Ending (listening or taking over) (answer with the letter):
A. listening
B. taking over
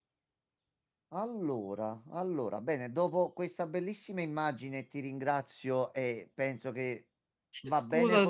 A